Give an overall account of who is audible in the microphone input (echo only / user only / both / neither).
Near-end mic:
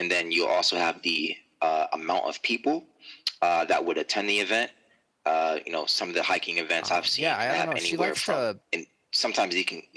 both